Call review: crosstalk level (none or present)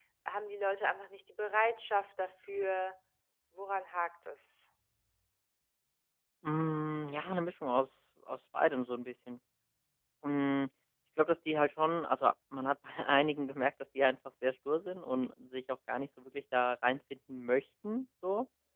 none